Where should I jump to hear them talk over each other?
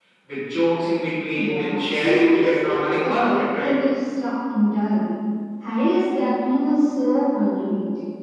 1 s

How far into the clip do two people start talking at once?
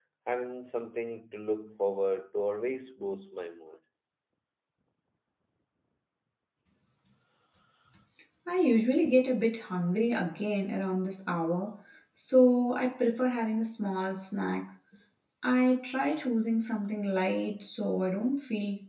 none

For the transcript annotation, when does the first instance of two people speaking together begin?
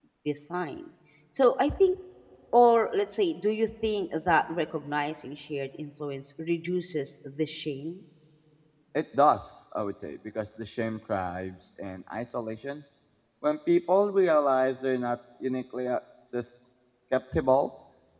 none

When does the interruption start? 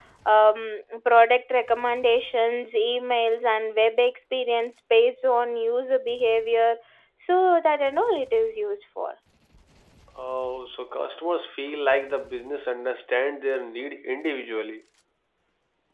none

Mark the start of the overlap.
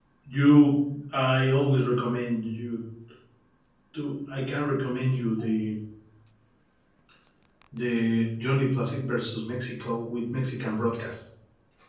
none

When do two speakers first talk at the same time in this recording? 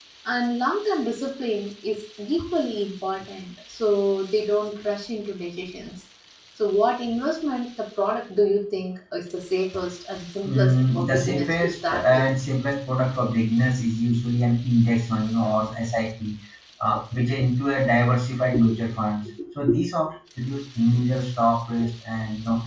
10 s

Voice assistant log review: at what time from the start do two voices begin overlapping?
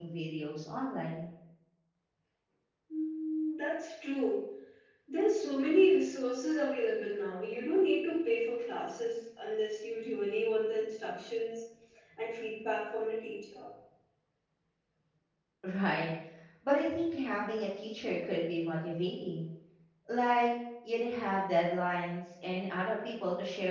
none

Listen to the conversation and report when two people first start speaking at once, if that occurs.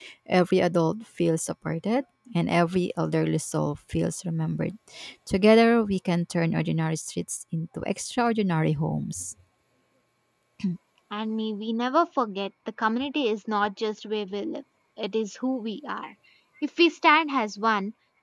none

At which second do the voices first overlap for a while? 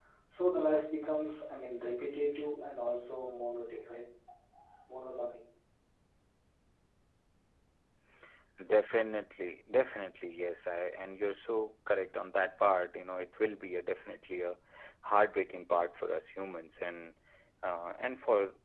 none

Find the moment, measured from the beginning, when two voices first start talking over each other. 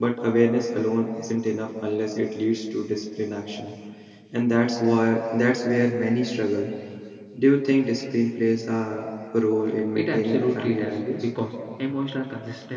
10 s

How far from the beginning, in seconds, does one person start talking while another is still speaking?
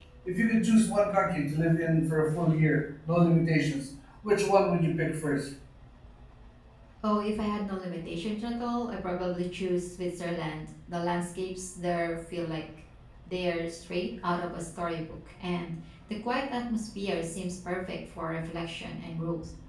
none

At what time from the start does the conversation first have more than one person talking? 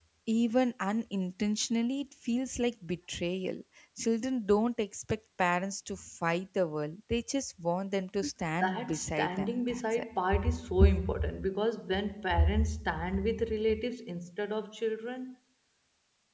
9 s

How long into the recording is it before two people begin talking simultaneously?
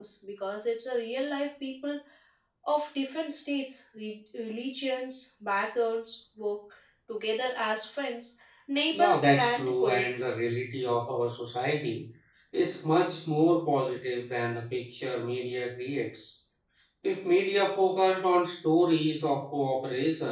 9 s

